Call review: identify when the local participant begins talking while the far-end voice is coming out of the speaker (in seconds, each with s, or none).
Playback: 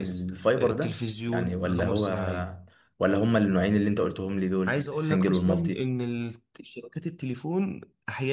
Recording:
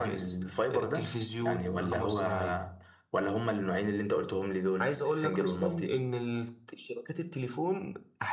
none